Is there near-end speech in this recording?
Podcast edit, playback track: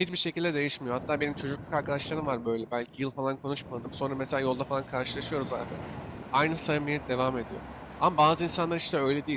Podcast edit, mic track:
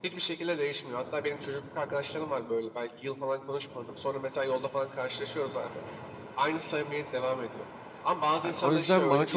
Yes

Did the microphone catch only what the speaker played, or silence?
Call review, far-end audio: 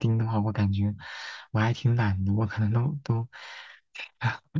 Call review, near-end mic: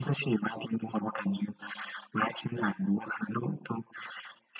Yes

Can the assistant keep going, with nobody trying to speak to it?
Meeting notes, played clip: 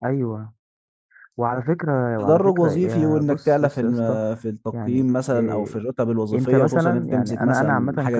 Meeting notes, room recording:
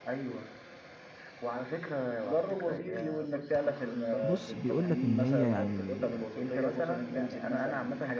No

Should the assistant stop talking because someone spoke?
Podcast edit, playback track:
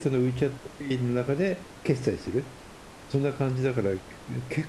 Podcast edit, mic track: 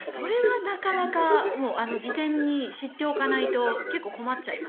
Yes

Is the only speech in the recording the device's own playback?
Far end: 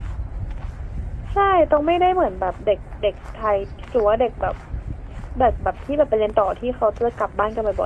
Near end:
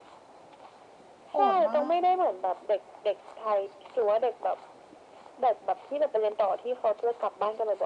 No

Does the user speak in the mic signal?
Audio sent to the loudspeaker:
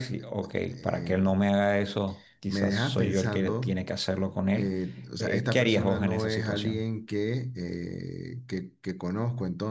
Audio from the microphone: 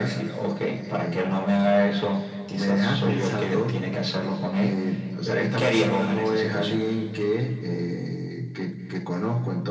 No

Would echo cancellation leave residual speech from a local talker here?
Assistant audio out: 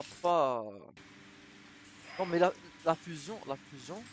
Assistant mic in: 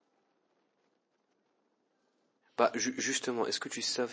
Yes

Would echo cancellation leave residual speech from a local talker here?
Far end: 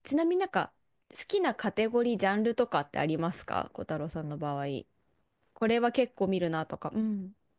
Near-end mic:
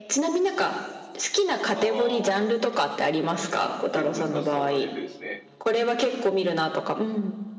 Yes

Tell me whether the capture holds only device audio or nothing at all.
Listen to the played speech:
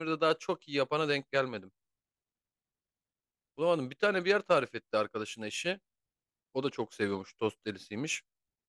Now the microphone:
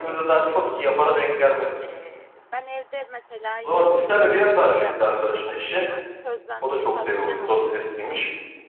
No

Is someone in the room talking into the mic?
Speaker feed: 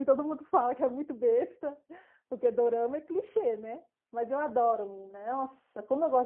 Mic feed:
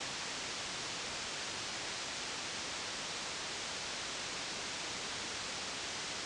No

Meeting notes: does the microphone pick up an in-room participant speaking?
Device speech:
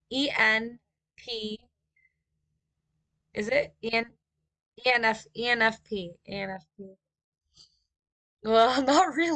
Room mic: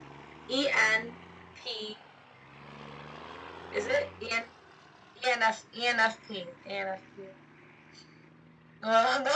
No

